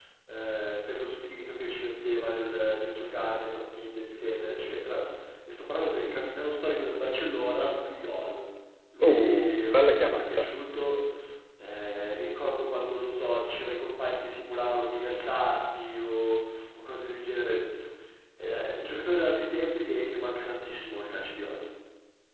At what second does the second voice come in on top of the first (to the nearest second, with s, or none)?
9 s